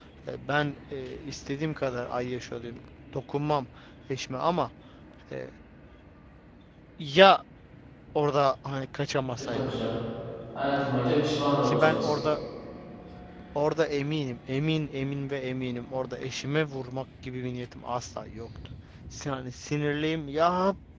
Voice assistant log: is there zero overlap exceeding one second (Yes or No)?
Yes